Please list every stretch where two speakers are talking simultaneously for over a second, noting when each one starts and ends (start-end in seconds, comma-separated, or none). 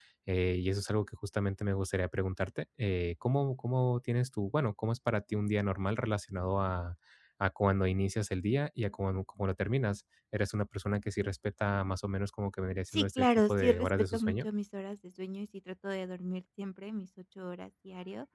12.9-14.5